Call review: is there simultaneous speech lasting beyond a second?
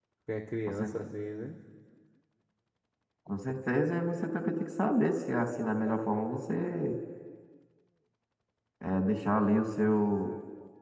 No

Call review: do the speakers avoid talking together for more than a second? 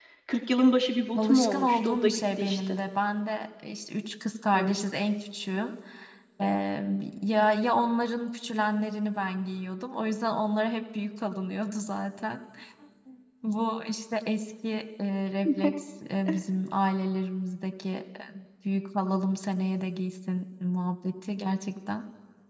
No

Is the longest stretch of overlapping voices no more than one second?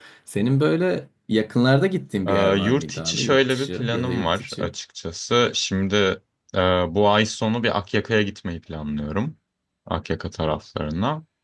No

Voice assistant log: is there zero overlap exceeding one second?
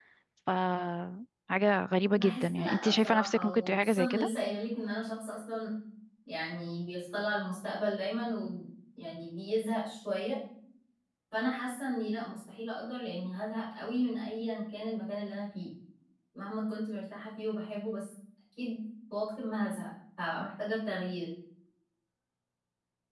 No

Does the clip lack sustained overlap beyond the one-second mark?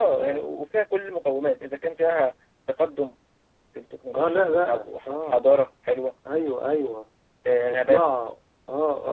No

